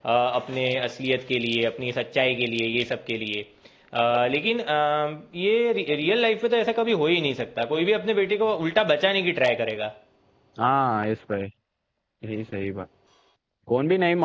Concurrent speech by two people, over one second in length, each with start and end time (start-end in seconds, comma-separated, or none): none